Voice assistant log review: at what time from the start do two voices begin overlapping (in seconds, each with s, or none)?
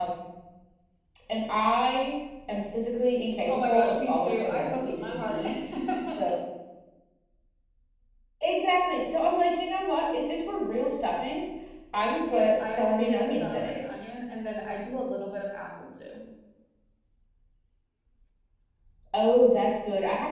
3.5 s